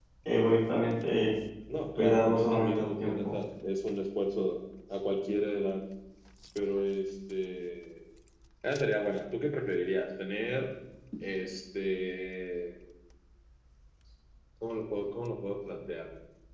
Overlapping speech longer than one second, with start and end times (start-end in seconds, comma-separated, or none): 2.0-3.4